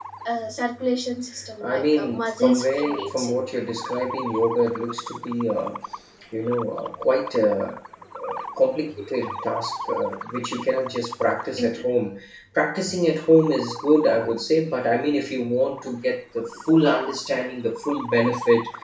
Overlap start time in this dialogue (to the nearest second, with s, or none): 2 s